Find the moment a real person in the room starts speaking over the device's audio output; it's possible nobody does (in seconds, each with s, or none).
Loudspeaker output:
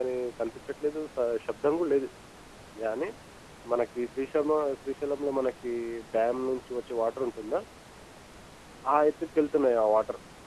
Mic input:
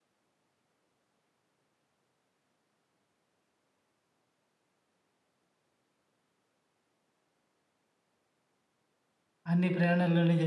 9.5 s